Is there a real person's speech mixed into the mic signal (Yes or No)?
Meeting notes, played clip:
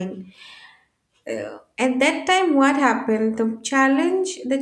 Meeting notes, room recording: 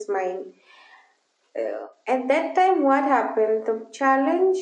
No